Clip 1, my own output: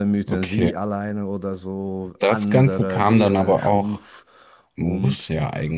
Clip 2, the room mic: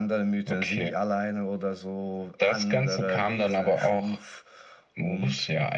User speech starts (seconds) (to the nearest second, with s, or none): none